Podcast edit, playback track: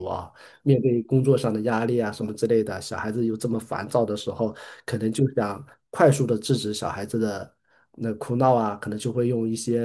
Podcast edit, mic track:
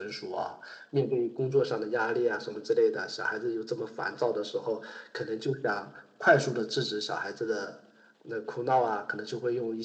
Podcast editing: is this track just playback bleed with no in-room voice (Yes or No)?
Yes